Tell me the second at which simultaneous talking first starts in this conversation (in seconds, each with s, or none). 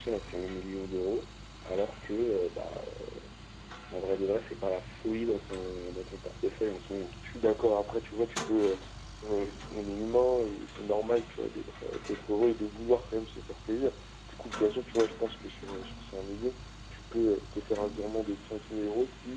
none